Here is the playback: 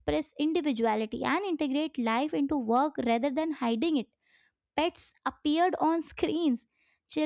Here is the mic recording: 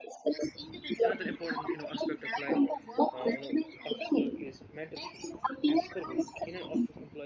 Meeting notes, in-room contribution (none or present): present